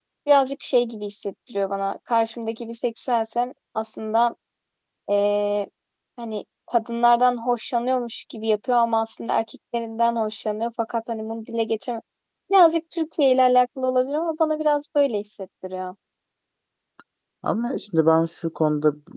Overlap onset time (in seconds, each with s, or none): none